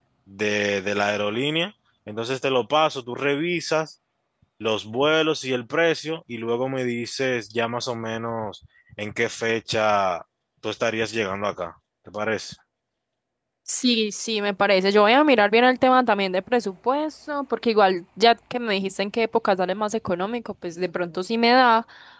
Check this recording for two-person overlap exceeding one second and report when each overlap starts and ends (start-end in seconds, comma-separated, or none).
none